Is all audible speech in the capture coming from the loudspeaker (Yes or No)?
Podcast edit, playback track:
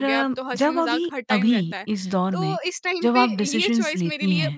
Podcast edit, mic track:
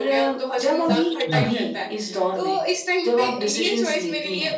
No